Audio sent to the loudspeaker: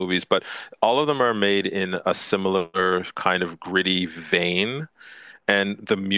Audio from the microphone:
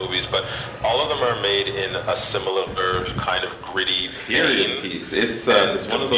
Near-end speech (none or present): present